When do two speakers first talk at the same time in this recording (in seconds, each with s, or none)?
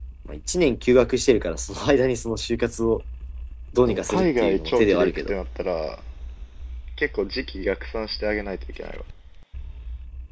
3.8 s